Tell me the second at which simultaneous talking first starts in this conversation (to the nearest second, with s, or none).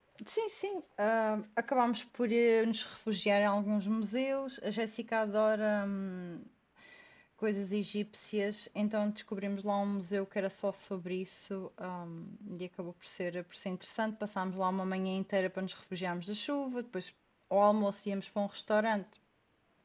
none